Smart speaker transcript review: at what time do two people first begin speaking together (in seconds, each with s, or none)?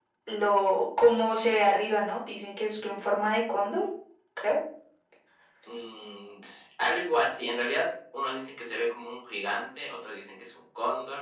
none